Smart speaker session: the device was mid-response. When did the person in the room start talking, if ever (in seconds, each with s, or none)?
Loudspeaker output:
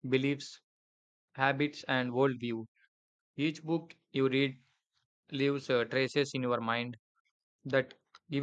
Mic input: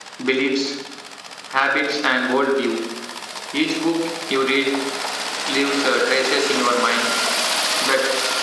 none